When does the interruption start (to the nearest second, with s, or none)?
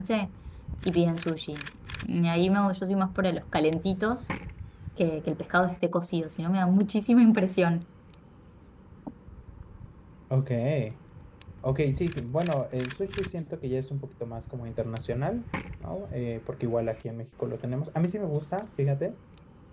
none